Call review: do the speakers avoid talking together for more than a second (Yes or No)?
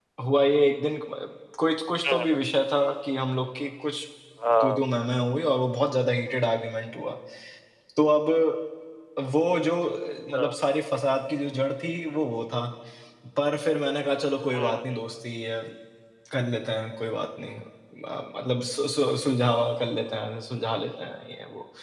Yes